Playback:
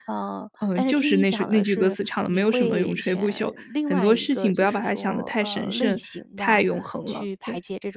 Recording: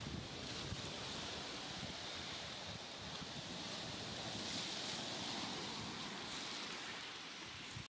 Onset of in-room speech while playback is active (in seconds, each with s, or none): none